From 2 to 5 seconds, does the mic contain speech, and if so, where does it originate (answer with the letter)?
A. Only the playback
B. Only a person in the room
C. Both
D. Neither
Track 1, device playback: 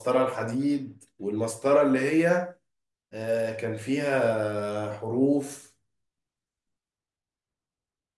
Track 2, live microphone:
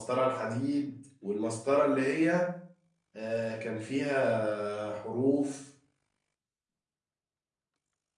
A